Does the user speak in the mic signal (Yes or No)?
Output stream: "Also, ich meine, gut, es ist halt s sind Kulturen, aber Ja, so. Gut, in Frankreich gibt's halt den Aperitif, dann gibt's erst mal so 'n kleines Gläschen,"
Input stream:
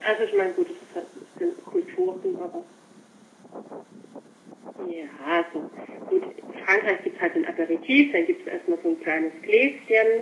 No